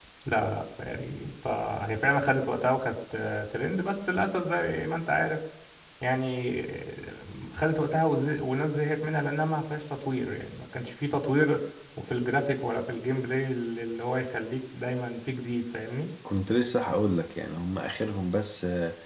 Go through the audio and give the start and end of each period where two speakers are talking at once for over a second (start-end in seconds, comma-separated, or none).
none